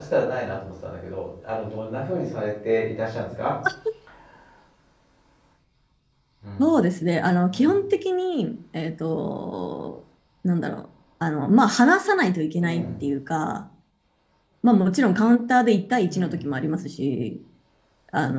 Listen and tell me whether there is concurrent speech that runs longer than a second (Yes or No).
No